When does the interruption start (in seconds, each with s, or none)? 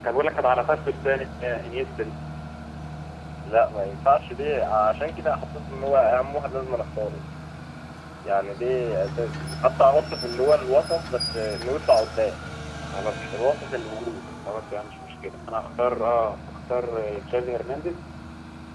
none